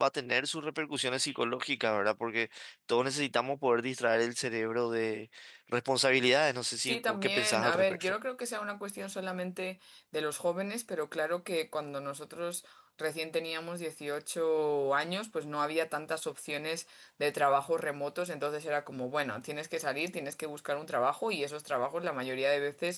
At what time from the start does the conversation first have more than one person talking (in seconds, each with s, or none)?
6.8 s